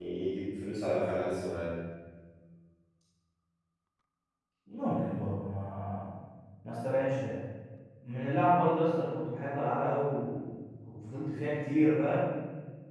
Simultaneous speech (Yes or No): No